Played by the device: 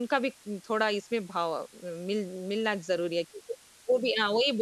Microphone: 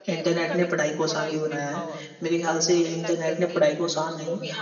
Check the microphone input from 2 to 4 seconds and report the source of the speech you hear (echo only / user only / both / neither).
both